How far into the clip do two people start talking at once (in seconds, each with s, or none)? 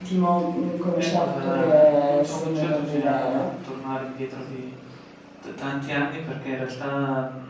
0.9 s